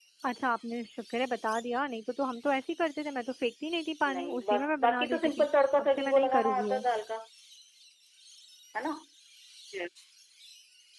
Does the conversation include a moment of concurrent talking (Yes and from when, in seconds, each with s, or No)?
Yes, from 4.0 s